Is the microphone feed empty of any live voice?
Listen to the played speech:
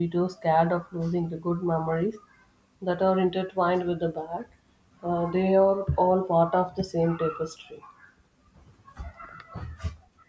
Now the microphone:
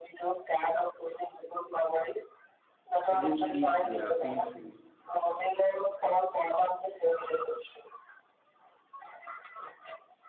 No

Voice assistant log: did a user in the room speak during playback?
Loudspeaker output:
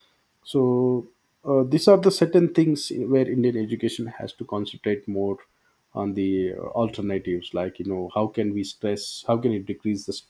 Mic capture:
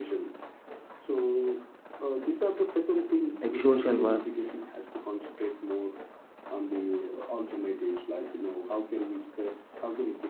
Yes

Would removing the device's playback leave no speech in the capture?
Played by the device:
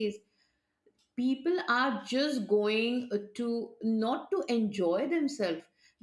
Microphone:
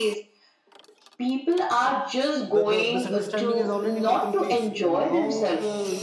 No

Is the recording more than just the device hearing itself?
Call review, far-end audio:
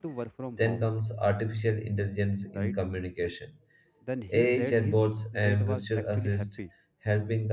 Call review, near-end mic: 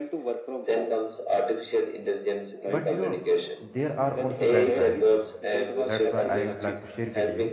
Yes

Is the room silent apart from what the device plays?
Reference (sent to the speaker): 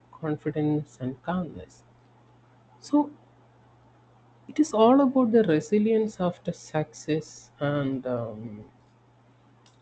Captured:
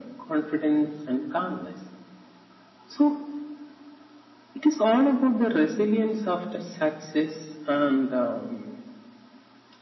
Yes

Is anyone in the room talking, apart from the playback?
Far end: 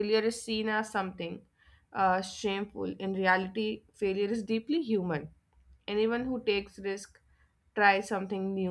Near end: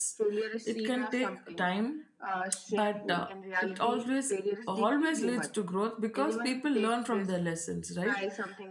Yes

